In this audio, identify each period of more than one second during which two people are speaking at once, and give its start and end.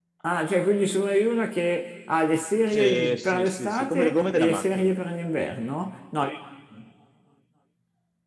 2.7-4.9

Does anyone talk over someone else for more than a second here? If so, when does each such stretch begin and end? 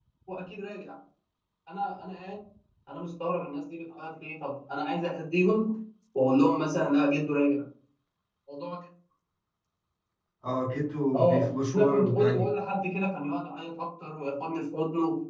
11.1-12.5

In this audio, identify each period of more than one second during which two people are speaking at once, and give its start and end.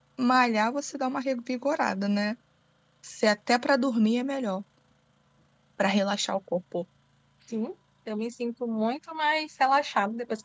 none

